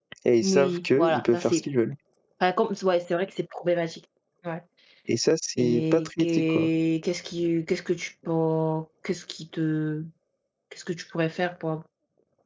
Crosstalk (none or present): present